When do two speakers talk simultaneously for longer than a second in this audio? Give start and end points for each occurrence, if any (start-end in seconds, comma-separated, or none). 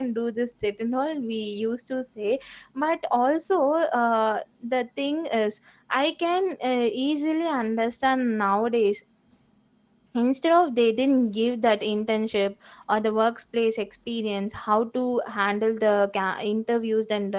none